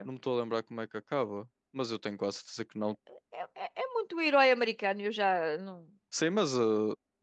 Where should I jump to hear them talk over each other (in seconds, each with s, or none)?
none